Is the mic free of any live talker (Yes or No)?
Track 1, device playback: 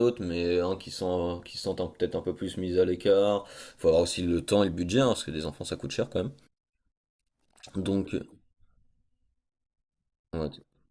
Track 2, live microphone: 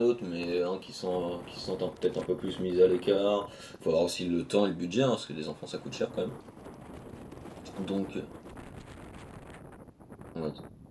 Yes